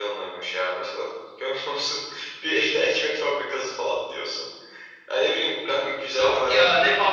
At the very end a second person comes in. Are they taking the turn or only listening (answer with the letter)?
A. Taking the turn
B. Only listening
A